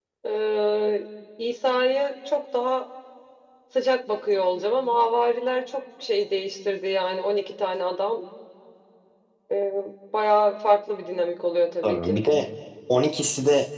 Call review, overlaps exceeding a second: none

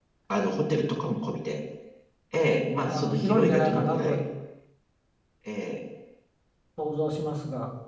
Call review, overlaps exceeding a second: present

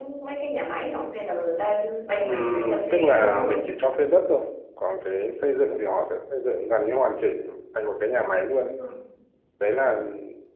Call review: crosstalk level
present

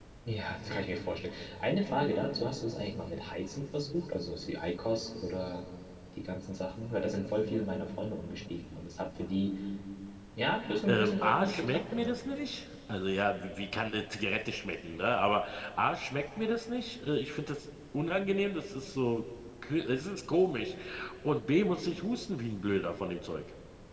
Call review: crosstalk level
present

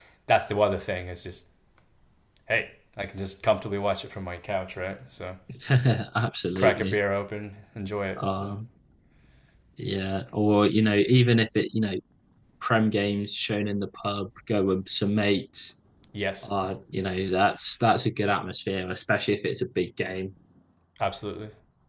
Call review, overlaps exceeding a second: none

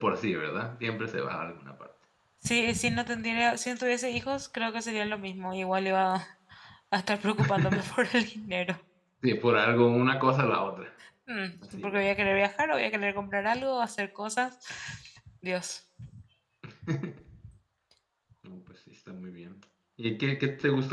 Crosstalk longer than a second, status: none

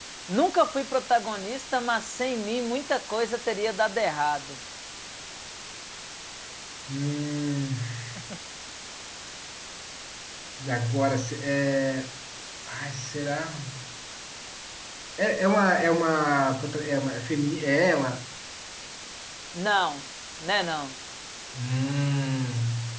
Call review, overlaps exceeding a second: none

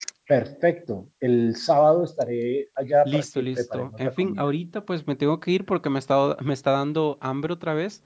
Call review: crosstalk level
present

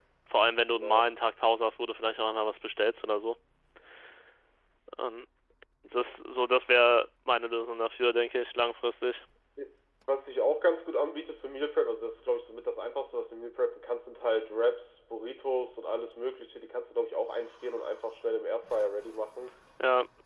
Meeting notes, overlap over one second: none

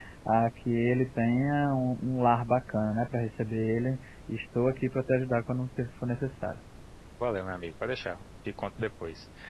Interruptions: none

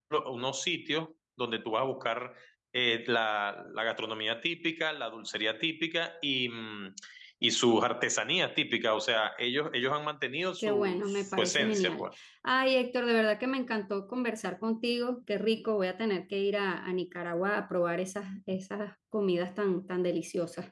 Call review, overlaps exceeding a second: present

